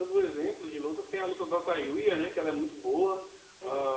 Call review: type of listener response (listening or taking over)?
taking over